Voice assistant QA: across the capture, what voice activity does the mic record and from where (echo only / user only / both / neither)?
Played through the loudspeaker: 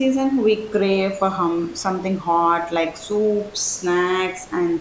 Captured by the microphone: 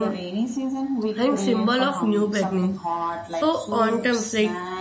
both